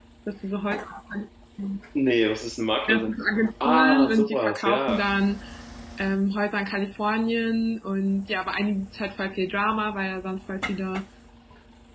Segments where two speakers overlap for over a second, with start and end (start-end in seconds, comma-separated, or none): 3.6-5.0